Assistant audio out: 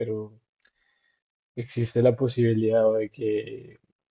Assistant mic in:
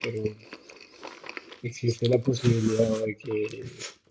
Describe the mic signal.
echo only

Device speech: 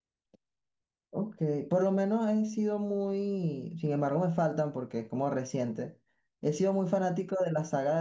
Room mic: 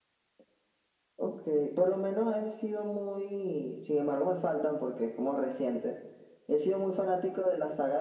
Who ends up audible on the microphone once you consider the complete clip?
echo only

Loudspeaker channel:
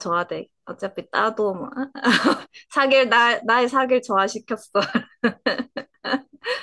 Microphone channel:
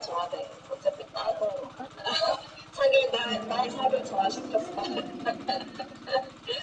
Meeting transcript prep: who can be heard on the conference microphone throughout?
both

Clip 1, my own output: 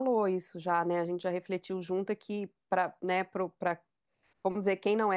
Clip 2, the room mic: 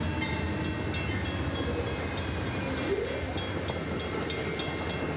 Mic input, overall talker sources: neither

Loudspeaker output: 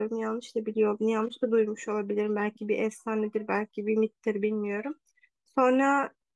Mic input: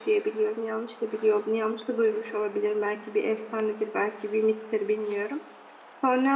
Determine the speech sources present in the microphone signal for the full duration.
echo only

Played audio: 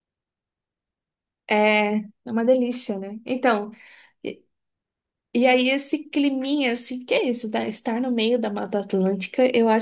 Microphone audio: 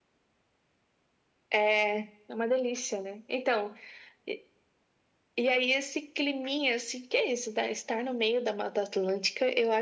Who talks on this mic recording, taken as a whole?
echo only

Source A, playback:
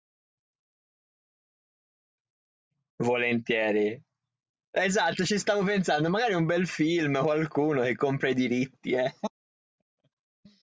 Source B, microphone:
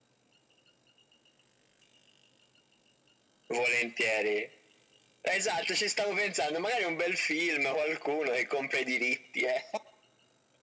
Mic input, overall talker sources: echo only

